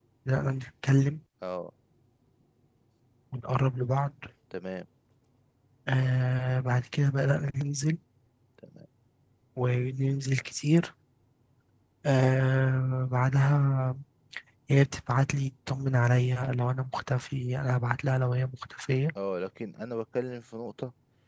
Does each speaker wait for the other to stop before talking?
Yes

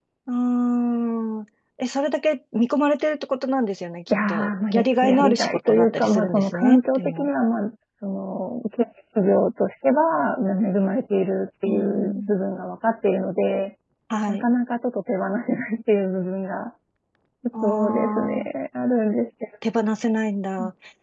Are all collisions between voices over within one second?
No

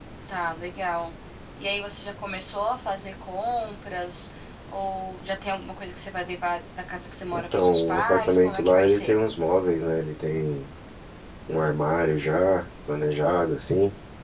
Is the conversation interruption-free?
No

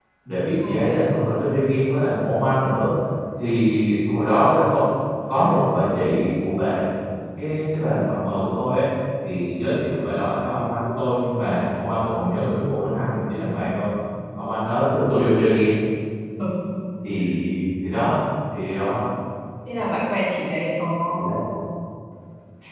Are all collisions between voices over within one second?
Yes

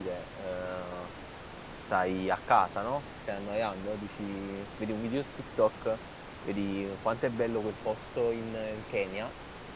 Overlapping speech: No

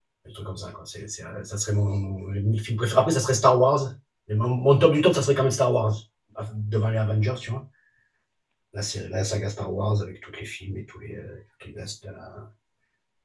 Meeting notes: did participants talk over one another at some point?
No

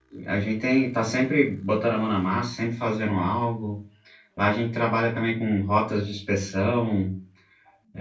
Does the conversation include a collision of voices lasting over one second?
No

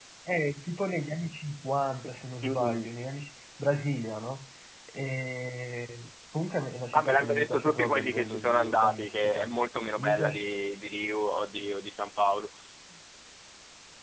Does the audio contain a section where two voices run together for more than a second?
Yes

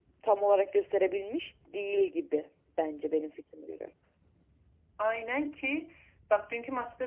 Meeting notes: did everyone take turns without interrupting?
Yes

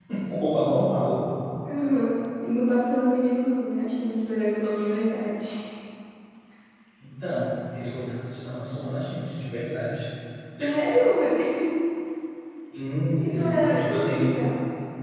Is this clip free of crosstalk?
No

